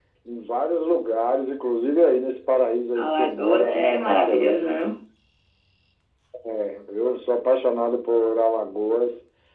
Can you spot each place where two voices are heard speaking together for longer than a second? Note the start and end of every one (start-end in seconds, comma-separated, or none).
3.0-4.6